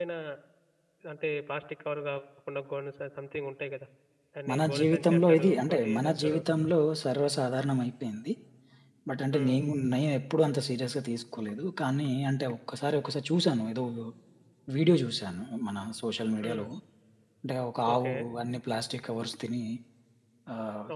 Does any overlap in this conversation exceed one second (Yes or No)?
Yes